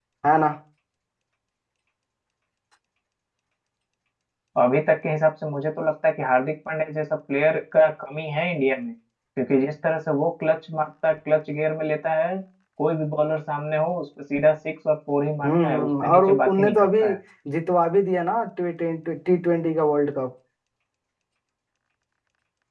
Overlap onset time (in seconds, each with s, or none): 15.4 s